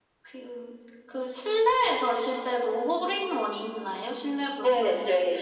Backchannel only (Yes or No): No